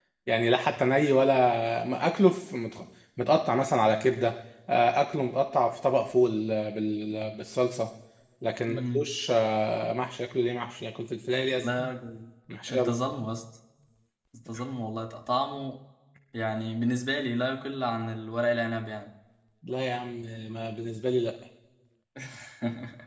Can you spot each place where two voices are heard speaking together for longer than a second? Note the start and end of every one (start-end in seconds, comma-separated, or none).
none